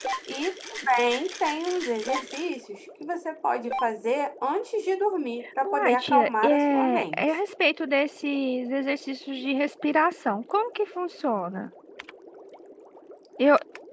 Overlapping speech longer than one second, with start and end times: 5.6-7.2

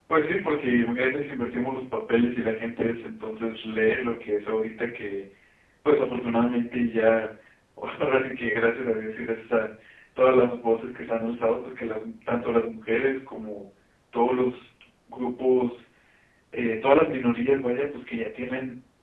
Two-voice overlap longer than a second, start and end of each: none

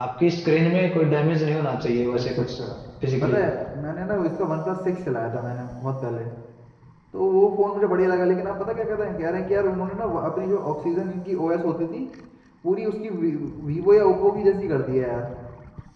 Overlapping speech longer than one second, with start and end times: none

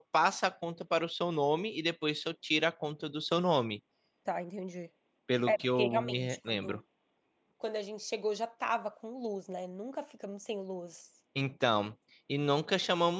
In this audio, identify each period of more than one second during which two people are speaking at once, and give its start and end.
5.5-6.8

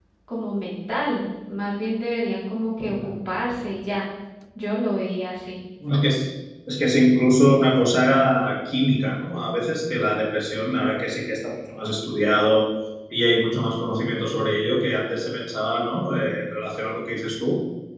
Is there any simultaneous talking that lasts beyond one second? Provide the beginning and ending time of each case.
none

